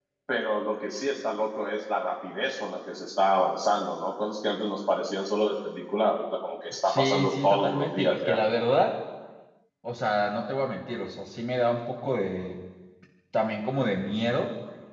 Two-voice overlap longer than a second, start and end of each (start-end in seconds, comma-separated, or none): 6.8-8.4